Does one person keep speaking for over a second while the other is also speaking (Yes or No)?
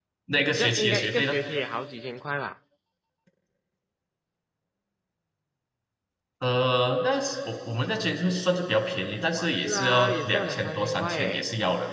Yes